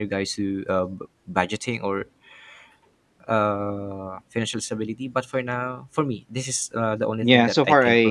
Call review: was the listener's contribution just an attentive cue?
No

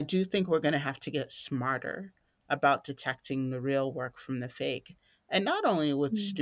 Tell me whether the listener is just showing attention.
Yes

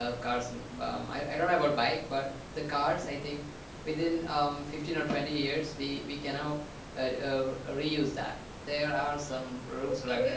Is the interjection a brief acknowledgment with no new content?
No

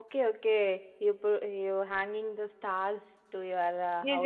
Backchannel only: No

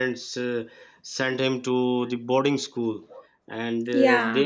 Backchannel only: Yes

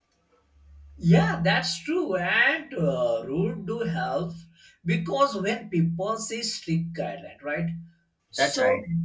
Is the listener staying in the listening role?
Yes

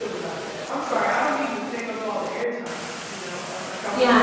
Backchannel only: No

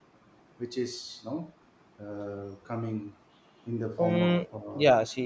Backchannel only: No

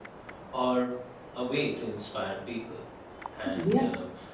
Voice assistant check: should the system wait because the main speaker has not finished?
Yes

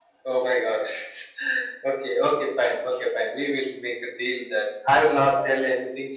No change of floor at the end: Yes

